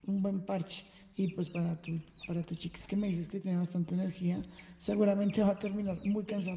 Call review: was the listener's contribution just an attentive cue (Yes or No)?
Yes